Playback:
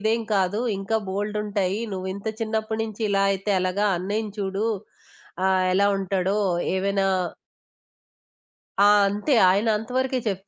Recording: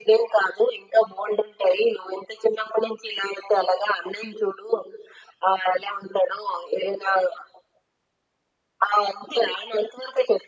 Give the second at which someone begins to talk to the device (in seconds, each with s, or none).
none